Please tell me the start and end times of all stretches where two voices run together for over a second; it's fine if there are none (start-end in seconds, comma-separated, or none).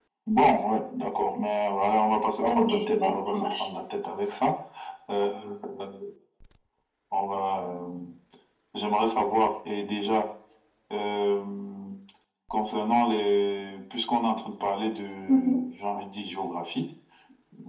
2.4-3.7